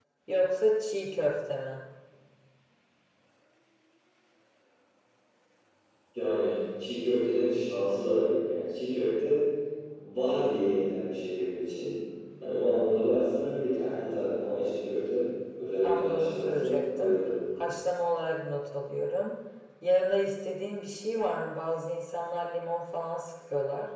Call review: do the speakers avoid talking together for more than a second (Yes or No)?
No